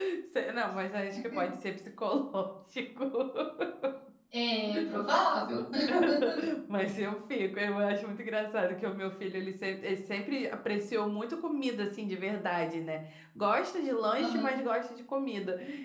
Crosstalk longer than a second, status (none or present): none